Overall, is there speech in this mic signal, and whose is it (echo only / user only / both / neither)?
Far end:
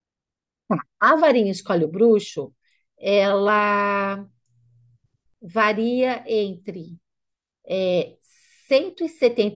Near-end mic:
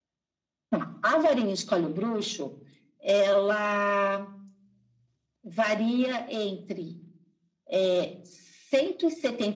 echo only